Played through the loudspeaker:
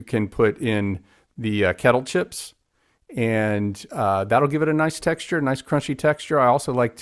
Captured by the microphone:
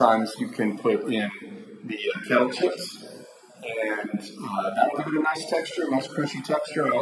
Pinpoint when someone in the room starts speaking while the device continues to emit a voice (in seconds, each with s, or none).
none